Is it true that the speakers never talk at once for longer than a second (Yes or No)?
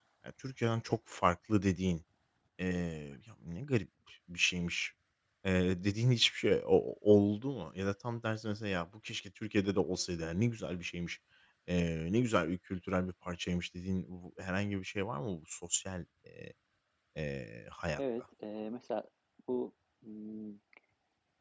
Yes